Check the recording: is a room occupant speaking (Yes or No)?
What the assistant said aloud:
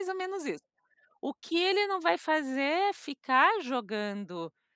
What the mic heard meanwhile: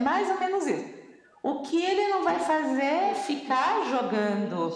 Yes